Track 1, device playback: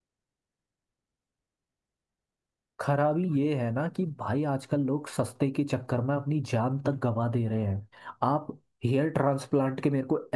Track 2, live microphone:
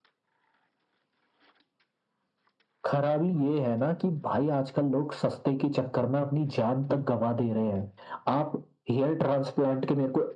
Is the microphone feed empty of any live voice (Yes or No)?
Yes